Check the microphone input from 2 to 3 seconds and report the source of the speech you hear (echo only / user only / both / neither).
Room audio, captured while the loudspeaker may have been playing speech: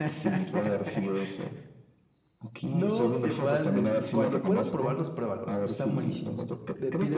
both